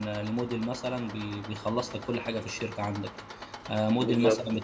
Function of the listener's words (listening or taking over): listening